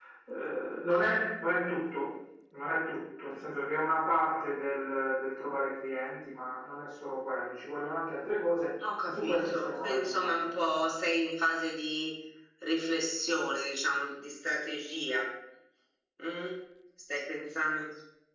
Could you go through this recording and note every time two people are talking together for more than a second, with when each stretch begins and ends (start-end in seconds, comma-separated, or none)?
9.1-10.8